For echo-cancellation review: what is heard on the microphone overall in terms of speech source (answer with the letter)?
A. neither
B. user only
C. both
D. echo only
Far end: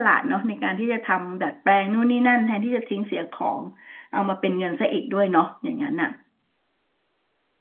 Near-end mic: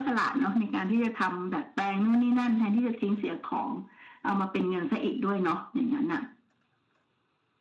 D